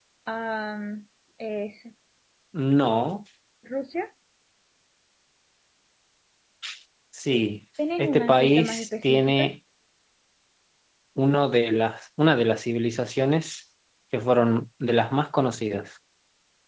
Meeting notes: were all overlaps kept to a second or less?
No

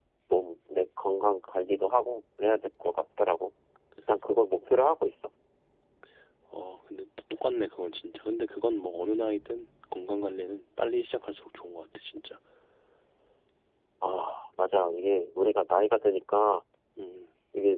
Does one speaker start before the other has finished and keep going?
No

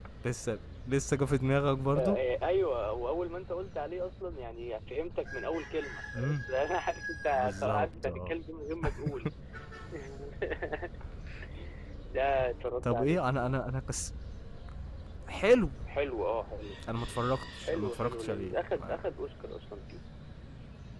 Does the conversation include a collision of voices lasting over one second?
Yes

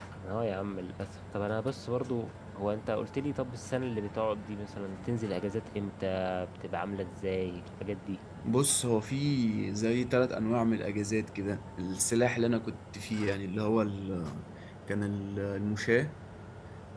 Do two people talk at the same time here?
No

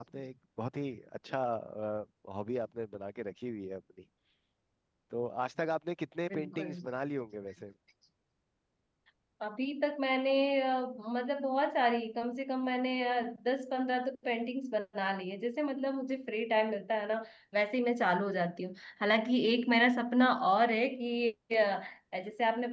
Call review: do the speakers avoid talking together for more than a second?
Yes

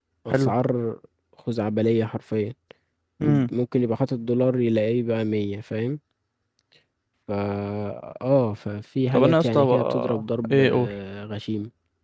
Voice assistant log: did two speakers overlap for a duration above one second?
Yes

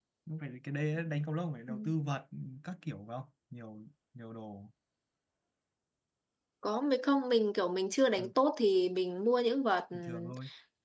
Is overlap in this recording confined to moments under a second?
Yes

